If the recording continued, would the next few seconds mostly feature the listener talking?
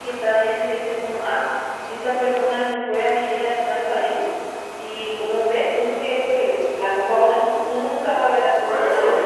Yes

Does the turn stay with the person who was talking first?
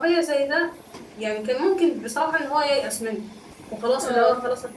Yes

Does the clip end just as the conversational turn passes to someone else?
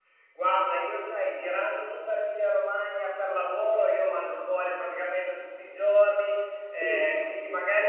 No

